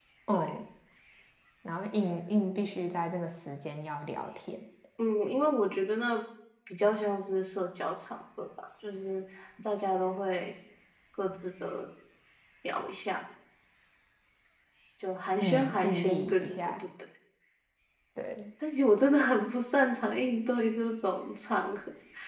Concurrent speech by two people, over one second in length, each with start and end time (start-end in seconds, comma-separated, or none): 15.4-16.8